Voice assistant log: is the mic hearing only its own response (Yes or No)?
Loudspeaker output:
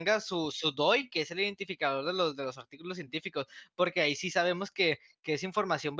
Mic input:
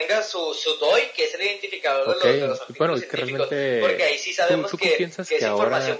No